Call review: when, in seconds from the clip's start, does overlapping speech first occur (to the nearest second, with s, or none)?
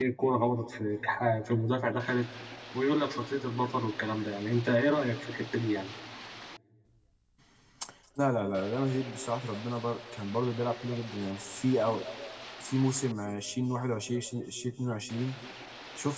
none